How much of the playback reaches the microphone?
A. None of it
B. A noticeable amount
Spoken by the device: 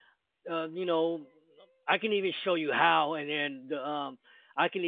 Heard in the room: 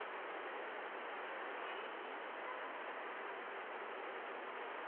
A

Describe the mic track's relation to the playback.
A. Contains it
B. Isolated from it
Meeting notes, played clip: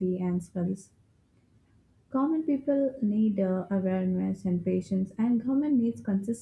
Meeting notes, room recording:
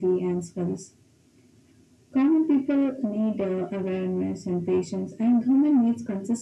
A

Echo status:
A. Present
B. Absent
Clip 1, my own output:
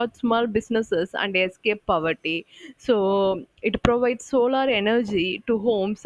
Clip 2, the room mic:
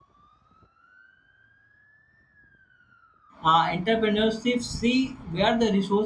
B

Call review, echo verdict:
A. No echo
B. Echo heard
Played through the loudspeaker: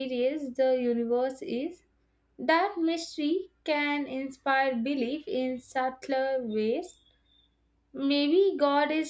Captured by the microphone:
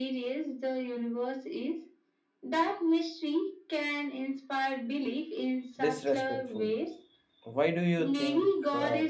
B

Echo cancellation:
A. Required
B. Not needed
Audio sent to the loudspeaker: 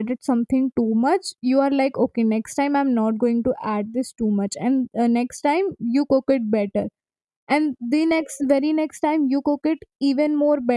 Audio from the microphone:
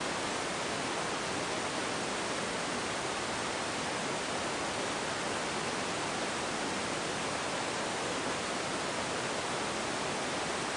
B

